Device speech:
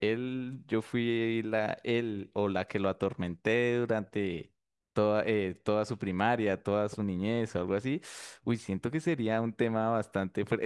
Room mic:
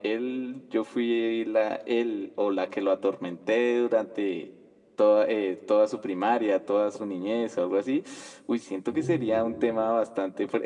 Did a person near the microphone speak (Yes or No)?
Yes